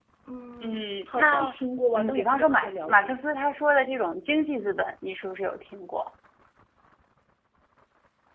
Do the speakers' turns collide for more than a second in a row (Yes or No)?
Yes